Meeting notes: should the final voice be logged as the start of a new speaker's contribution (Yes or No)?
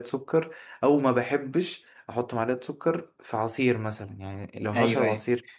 No